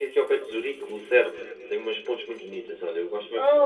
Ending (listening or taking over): taking over